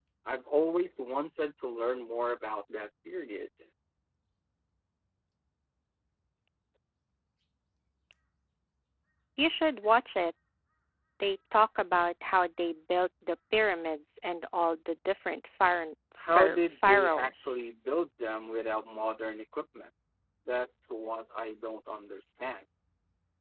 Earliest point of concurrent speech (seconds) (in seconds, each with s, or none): 16.2 s